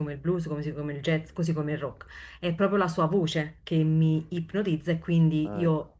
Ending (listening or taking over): listening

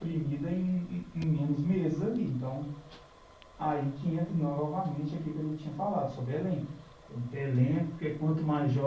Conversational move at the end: listening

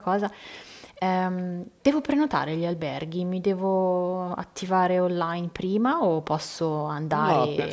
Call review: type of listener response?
taking over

